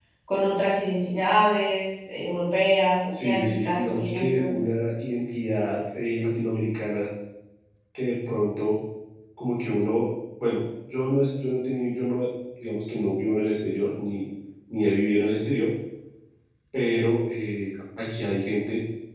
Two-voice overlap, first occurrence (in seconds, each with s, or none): 3.1 s